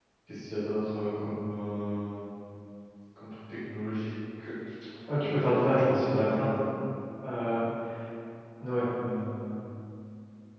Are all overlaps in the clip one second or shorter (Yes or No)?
No